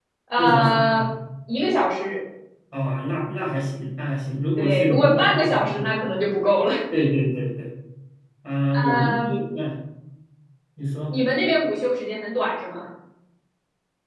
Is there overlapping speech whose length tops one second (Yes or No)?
Yes